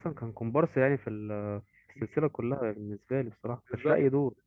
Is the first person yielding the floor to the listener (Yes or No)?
Yes